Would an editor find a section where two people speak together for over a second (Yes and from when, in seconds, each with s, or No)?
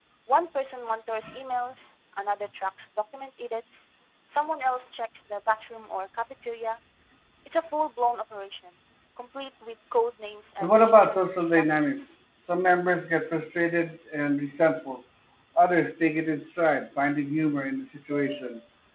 Yes, from 10.6 s